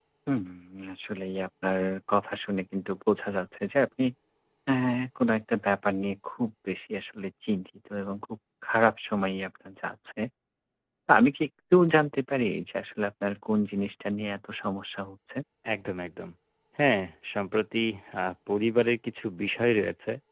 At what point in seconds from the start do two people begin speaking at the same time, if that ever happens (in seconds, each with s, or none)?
none